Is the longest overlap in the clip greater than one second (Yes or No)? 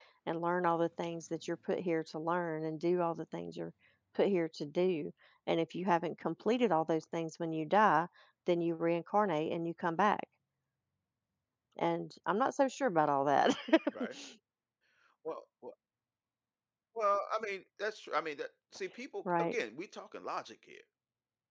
No